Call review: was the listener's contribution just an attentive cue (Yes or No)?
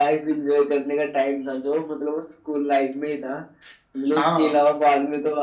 Yes